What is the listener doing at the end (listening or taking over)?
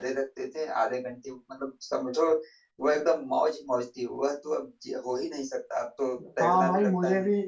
taking over